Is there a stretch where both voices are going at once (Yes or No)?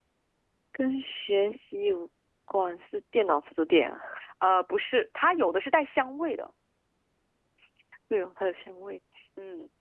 No